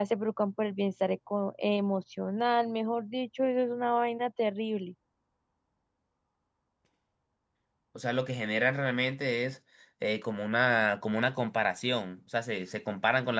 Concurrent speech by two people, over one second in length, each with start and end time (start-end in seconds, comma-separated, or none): none